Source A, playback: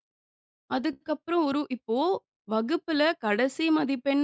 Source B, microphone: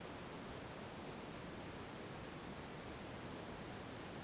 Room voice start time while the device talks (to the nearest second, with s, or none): none